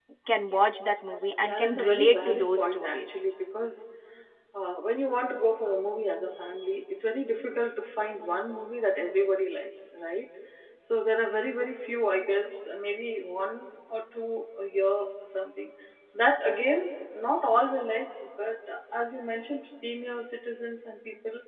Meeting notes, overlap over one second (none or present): present